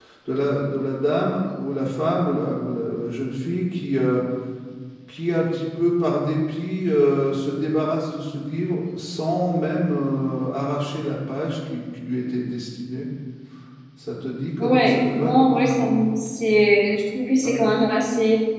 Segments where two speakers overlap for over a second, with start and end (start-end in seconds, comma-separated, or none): 14.6-15.9